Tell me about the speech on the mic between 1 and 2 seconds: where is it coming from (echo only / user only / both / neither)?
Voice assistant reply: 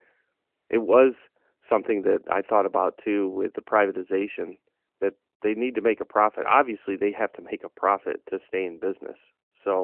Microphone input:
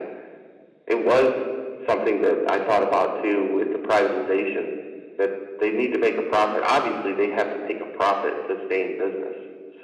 echo only